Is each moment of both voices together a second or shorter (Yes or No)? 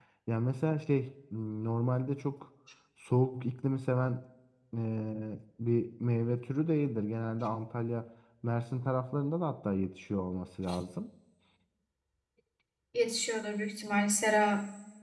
Yes